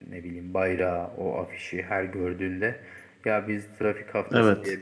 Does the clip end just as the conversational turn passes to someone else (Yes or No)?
No